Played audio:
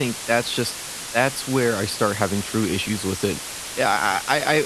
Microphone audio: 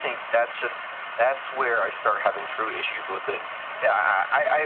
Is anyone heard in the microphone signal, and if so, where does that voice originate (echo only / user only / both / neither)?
both